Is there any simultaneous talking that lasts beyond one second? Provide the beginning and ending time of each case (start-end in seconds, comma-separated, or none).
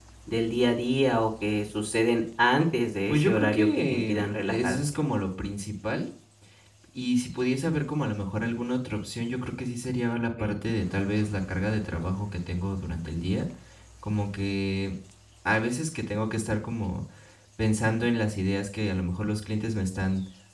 3.1-4.8